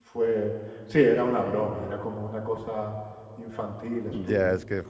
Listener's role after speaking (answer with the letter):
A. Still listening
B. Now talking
B